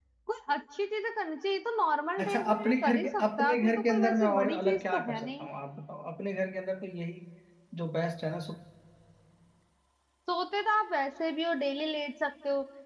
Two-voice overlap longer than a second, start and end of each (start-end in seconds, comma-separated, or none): 2.2-5.5